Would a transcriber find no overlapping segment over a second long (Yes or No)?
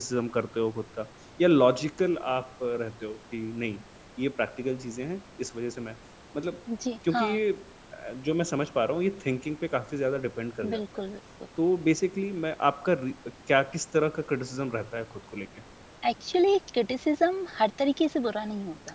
Yes